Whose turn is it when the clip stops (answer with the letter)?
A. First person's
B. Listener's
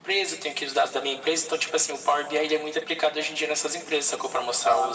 B